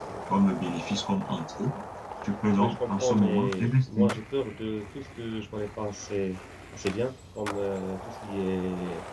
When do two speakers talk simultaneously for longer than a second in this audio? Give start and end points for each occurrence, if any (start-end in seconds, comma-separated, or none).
2.6-4.2